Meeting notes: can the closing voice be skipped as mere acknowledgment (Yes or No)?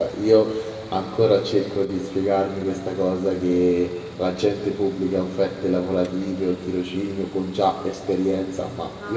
Yes